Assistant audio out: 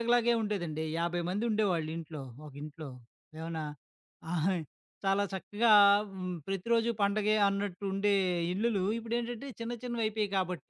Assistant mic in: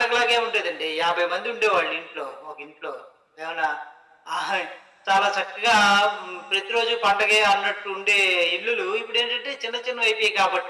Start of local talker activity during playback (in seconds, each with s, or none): none